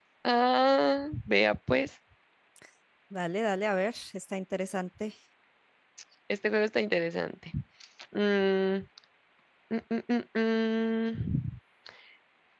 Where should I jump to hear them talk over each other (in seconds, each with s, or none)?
none